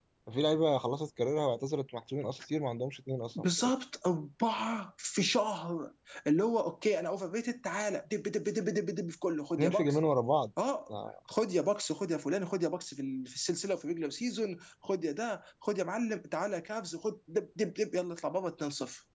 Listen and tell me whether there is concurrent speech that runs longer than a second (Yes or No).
No